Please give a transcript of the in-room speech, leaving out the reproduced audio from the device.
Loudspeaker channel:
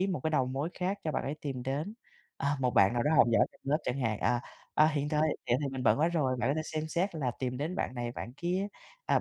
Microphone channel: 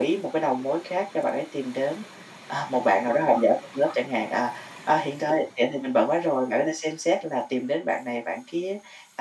none

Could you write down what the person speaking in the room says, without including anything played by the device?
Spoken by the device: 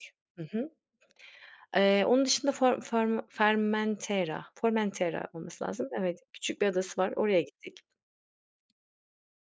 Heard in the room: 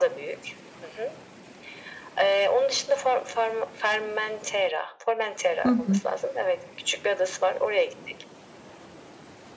Hı hı.

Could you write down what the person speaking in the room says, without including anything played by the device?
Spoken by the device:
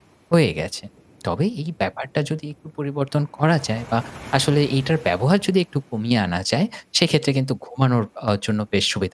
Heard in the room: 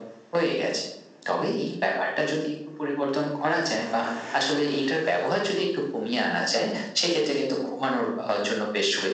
none

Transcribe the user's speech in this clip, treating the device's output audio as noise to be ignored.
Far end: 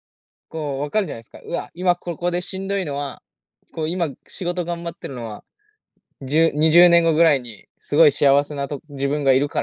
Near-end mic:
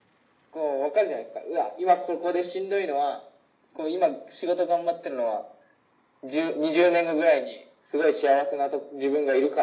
none

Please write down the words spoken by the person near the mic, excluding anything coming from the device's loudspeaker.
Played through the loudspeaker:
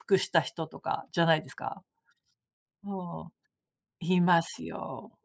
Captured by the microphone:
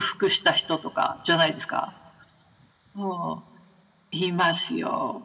none

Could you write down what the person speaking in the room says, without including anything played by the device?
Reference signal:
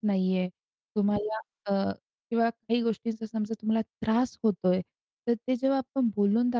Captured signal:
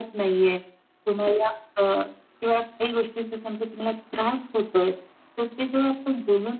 none

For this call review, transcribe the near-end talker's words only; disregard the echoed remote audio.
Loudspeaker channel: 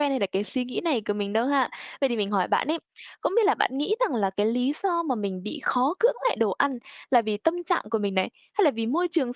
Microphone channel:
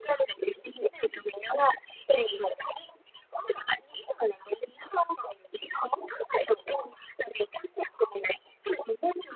none

